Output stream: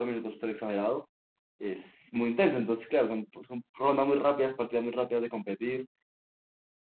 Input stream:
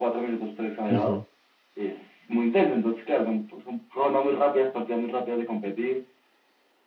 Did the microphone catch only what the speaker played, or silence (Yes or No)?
No